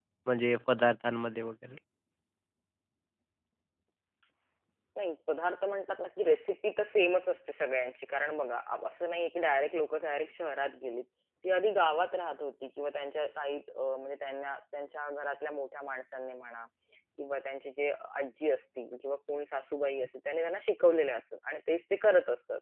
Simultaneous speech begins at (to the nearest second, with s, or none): none